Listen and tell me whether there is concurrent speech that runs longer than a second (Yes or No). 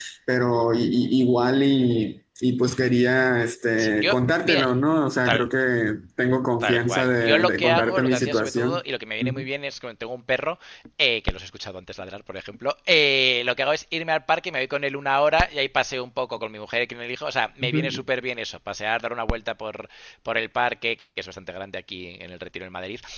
Yes